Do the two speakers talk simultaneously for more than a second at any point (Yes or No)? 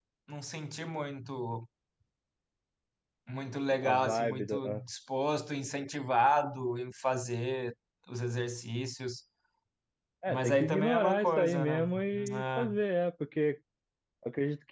Yes